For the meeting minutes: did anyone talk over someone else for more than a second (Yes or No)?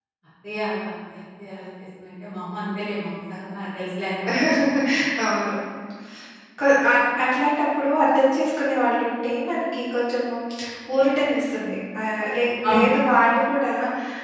No